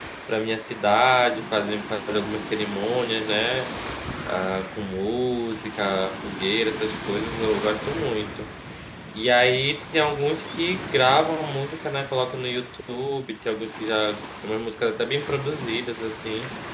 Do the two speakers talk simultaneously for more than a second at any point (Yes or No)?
No